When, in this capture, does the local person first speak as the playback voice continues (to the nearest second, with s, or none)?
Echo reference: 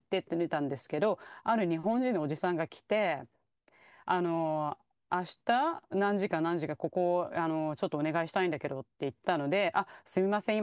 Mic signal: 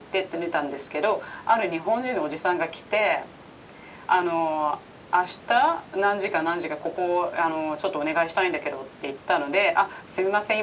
none